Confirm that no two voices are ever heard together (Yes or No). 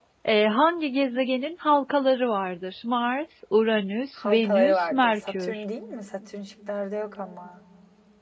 No